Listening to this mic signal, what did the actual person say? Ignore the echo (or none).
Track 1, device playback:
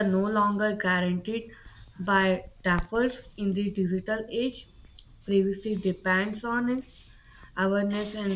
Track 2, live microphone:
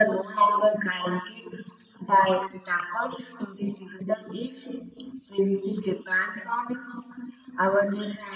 none